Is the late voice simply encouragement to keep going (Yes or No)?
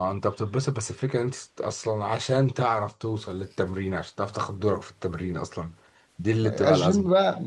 No